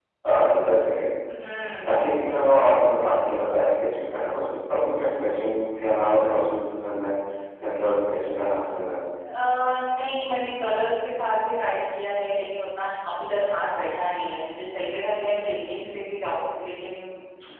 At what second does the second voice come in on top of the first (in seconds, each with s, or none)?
none